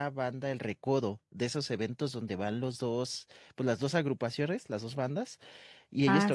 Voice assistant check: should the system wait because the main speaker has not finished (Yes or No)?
Yes